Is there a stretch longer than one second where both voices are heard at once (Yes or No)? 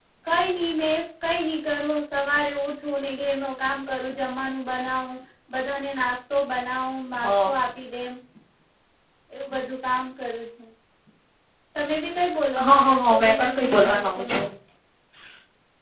Yes